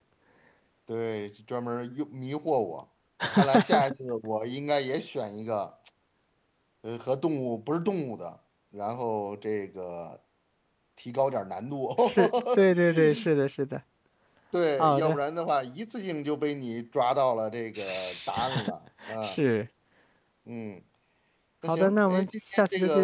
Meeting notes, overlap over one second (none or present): present